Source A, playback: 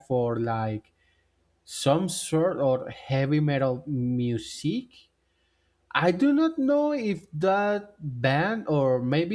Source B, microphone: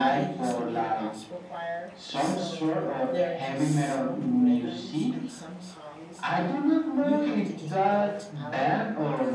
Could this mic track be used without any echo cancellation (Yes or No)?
No